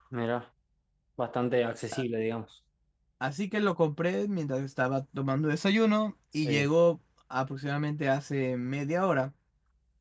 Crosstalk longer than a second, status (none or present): none